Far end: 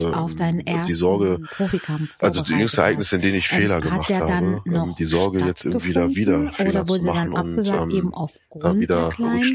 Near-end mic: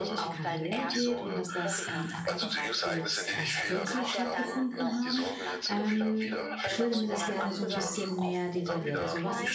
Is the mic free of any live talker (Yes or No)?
No